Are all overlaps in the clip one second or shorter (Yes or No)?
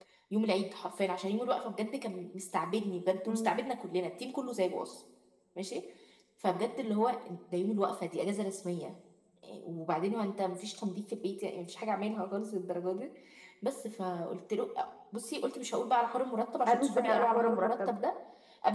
No